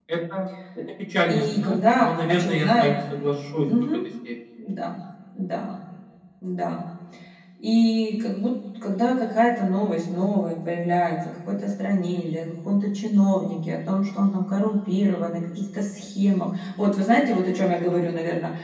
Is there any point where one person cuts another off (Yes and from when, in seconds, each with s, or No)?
Yes, from 1.3 s